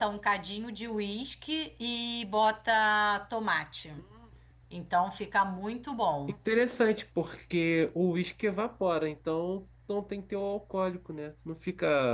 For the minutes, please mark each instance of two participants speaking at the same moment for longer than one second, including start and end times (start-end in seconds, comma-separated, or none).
none